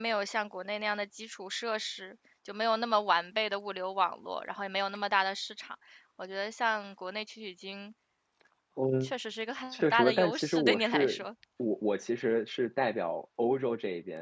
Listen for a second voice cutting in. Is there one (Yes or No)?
Yes